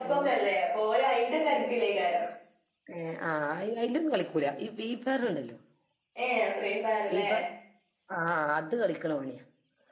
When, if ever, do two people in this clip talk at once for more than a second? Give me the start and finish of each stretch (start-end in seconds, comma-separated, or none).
none